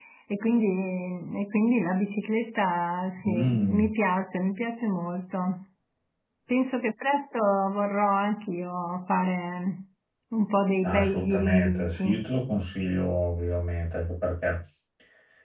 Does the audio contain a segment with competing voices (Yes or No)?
Yes